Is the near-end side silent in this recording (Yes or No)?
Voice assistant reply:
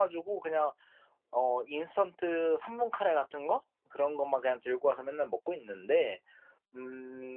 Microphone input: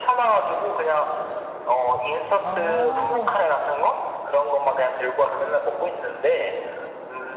No